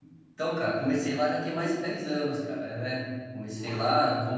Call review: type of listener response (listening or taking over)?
listening